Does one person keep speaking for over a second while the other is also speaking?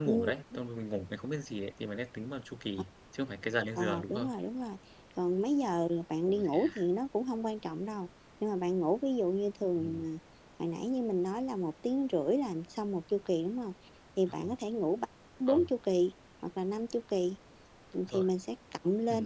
No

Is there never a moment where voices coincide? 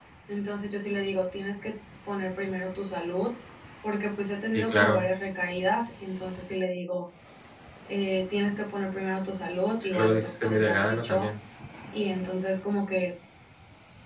No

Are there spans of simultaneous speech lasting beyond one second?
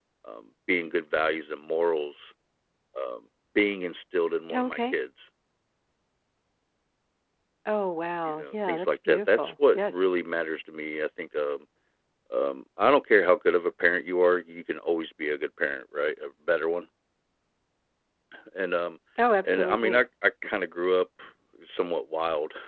Yes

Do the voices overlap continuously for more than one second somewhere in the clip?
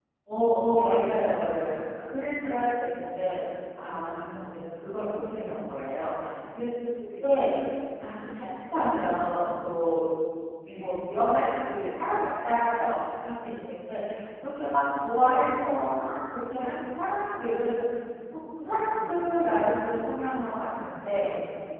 No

